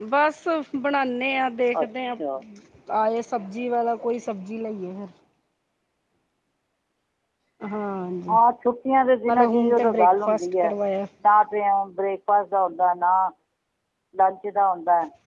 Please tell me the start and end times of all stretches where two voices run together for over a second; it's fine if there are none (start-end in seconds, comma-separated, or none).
9.3-10.7